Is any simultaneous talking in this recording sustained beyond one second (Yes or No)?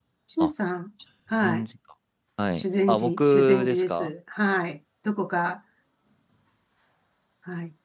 Yes